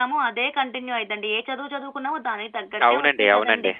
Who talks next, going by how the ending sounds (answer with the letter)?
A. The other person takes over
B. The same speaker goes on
A